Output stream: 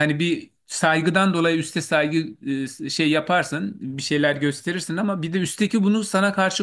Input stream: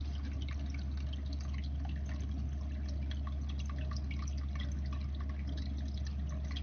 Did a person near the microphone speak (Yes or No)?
No